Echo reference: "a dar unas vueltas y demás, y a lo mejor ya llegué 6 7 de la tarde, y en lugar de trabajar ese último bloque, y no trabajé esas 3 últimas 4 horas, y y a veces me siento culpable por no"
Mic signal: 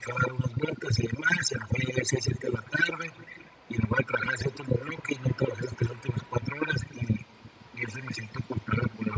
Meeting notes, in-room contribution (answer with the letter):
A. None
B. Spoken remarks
A